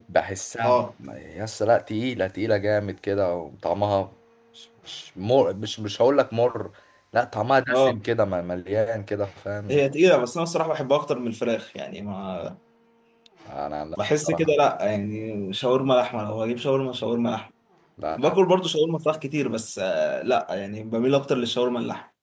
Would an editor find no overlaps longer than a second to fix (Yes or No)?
Yes